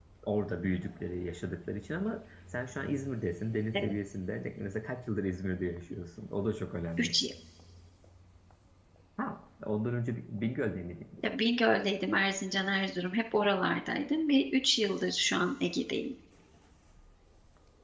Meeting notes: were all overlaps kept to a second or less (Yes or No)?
Yes